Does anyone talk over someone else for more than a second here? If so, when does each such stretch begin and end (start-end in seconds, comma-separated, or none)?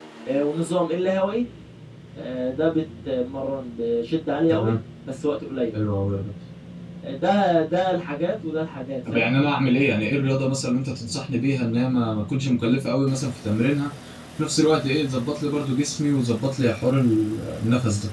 none